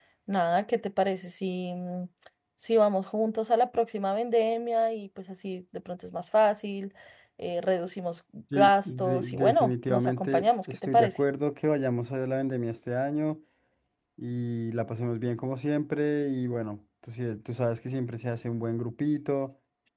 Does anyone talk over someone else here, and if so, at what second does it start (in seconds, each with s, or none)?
8.5 s